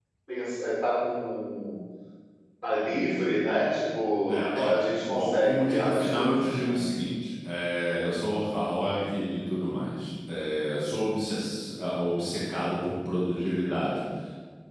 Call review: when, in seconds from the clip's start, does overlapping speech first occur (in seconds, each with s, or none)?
4.2 s